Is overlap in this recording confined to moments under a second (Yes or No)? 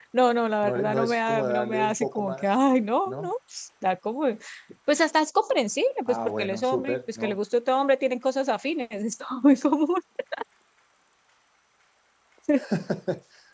No